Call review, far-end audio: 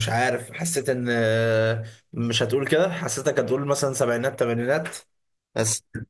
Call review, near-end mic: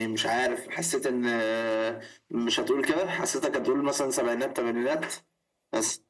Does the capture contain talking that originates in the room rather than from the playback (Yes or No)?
No